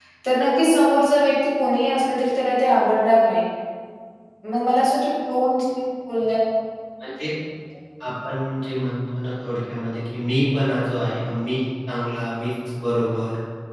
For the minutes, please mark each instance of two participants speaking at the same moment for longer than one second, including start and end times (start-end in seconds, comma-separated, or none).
none